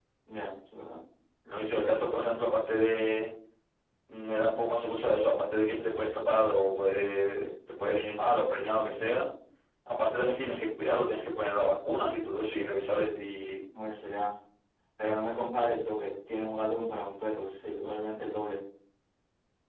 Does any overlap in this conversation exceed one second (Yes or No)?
No